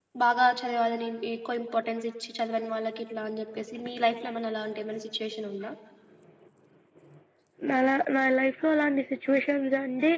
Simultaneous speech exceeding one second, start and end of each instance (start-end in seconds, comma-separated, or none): none